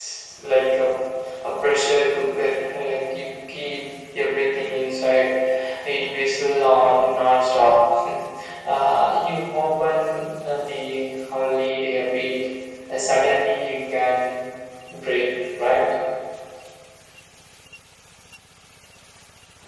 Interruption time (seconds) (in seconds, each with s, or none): none